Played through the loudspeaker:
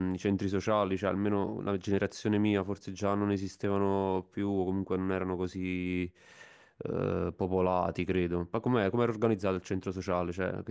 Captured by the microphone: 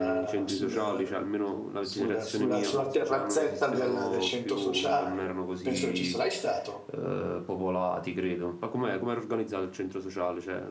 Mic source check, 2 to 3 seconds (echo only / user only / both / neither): both